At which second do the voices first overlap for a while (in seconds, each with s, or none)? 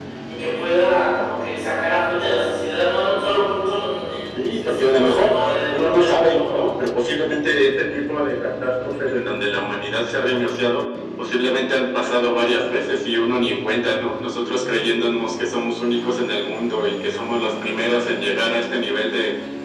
4.3 s